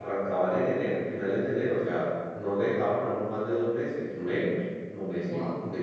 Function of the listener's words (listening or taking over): listening